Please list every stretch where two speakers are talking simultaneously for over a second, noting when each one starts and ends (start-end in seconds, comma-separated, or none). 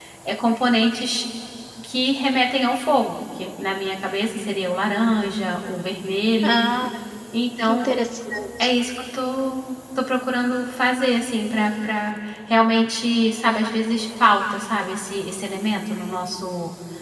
none